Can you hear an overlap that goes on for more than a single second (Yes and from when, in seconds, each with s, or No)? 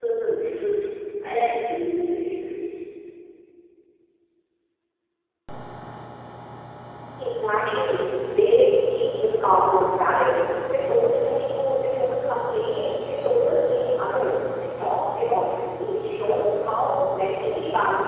No